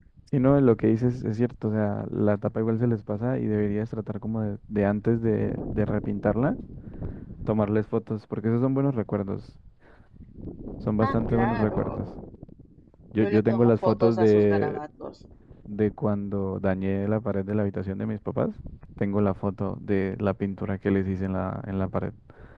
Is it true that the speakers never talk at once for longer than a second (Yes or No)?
No